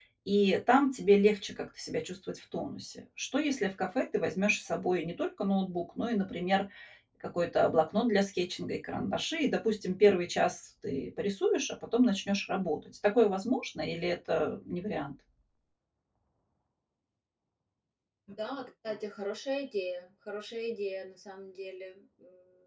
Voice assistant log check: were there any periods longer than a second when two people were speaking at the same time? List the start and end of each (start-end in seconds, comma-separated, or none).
none